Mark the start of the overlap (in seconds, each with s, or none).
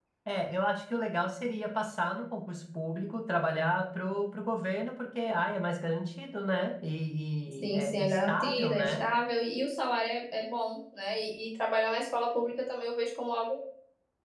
7.6 s